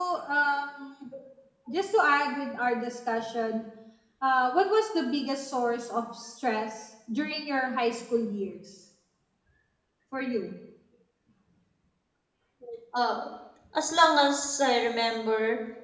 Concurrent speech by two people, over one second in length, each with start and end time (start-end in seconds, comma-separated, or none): none